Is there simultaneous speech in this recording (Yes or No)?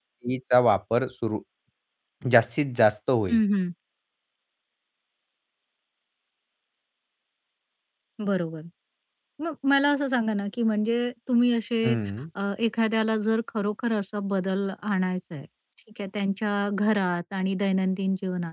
No